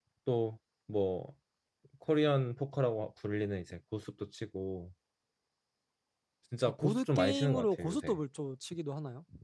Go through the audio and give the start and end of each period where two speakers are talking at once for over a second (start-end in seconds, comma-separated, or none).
6.7-8.2